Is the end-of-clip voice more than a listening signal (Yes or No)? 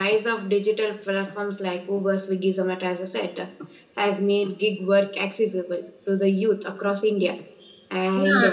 Yes